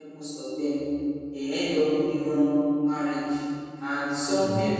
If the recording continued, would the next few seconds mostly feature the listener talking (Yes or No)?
No